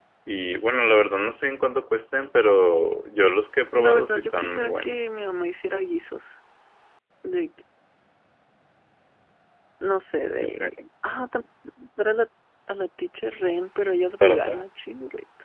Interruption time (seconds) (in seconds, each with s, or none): 3.7 s